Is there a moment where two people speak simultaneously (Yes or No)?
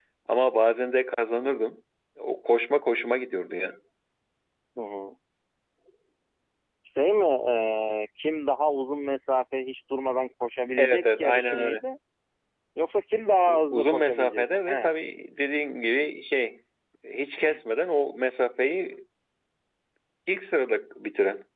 Yes